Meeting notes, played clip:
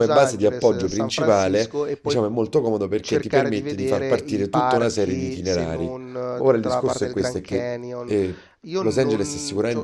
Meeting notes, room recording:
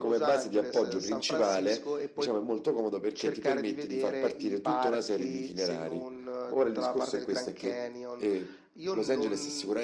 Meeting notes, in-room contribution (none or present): none